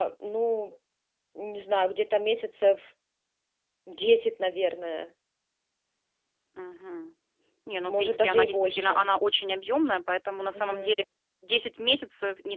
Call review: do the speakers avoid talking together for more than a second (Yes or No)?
No